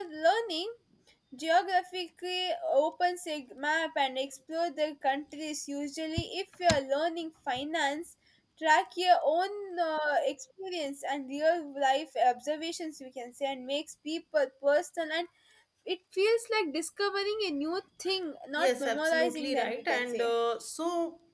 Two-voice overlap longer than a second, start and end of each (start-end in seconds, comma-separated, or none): 18.6-20.3